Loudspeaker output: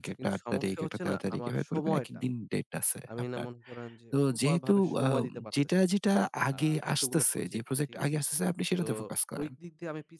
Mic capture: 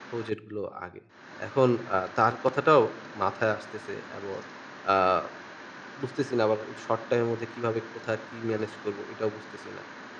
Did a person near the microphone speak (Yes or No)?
Yes